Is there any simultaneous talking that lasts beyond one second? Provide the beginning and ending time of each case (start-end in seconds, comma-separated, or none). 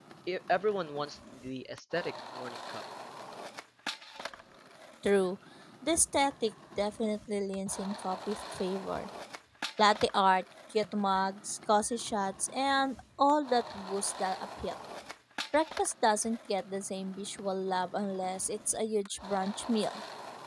none